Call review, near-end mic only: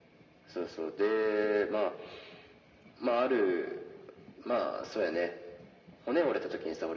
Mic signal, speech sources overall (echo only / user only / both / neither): echo only